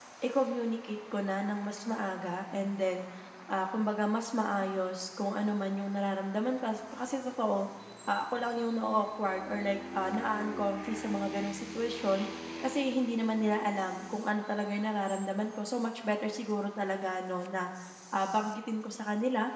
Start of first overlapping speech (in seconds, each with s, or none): none